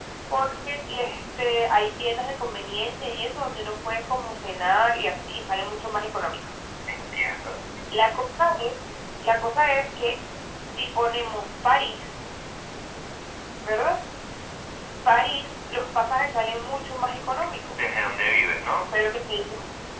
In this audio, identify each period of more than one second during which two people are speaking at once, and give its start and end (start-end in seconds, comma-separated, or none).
none